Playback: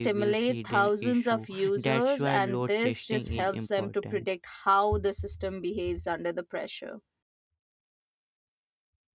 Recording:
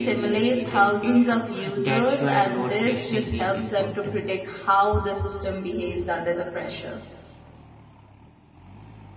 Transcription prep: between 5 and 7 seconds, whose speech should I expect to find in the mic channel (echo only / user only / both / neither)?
echo only